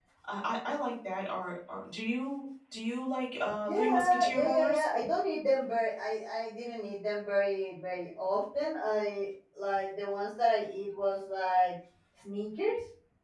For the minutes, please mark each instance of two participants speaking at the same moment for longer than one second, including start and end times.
3.6-4.8

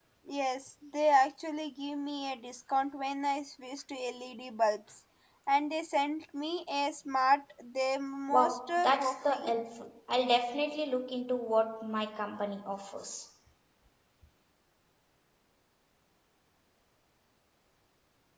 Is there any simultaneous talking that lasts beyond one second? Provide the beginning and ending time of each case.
8.3-9.5

